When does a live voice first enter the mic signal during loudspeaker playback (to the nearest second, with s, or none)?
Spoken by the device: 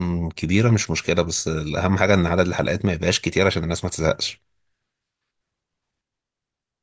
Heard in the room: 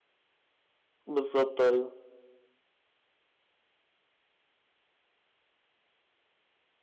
1 s